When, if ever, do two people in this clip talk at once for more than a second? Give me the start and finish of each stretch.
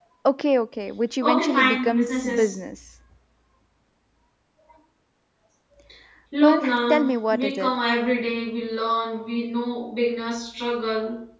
1.2-2.5, 6.4-7.8

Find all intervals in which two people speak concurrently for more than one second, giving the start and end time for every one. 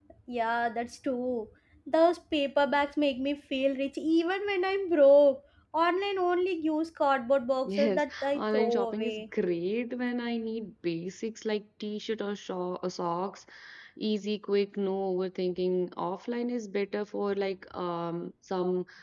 7.7-9.2

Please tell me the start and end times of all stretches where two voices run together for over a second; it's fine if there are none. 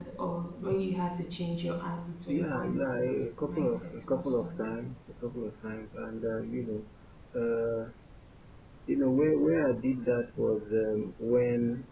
2.3-4.8

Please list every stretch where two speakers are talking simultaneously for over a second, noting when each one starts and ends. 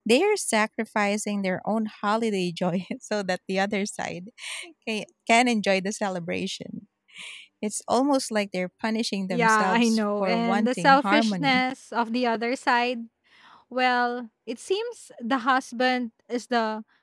9.3-11.6

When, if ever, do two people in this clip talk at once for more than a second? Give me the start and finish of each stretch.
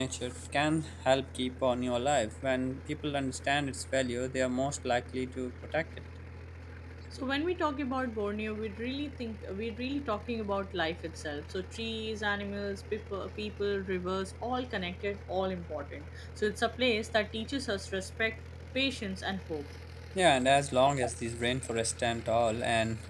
none

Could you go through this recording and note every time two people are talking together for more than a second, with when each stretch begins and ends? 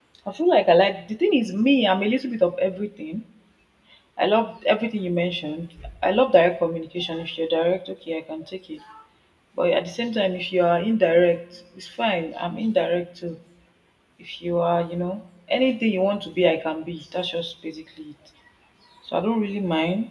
none

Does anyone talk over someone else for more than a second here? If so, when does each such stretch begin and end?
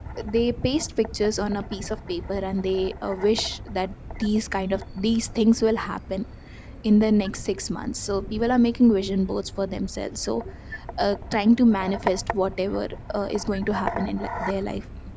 none

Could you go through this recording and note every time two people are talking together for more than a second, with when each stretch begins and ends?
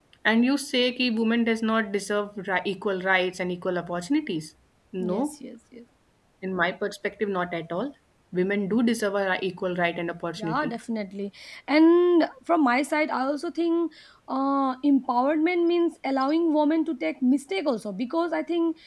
none

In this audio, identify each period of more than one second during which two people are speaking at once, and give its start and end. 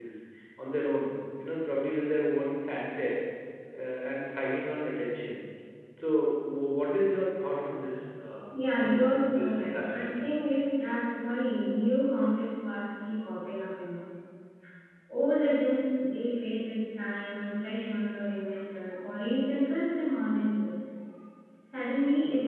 8.8-10.1

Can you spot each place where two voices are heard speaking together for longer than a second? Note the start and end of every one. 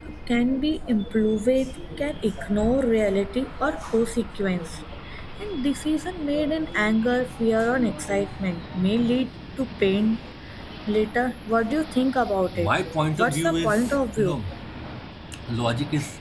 13.2-14.4

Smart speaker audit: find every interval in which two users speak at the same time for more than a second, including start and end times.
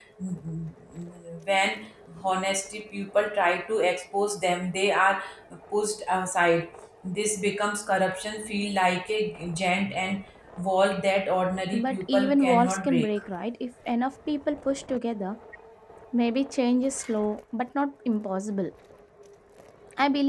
11.7-13.1

